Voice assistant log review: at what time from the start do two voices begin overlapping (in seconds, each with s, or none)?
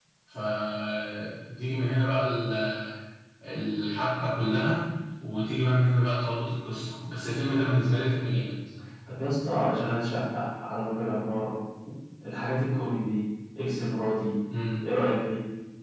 none